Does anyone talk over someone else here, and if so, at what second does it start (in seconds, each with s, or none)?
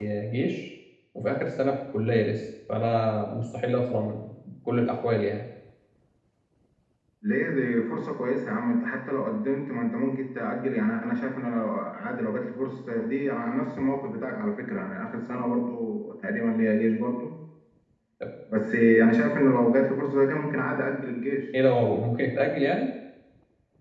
none